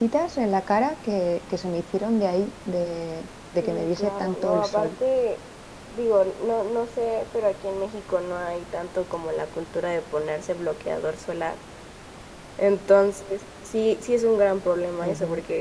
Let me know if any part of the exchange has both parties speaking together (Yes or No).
Yes